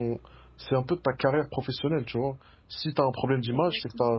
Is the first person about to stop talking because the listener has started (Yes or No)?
No